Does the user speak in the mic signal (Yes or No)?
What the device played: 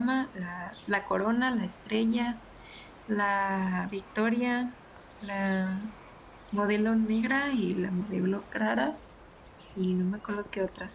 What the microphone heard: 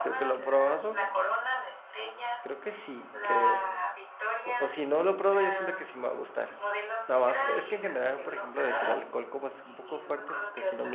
Yes